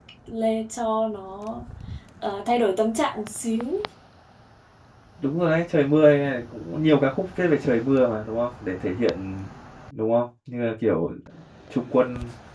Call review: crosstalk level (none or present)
none